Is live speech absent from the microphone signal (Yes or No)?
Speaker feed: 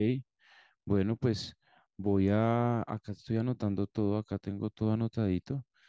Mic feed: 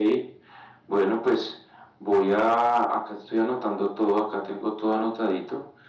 Yes